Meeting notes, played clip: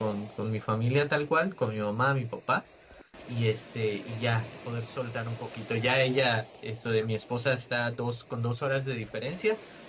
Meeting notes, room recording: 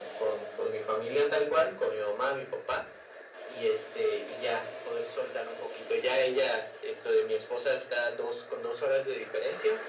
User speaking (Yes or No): No